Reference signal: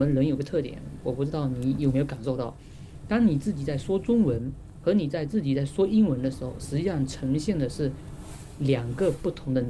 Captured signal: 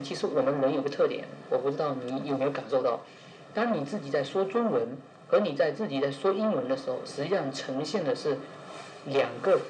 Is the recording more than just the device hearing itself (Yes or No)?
No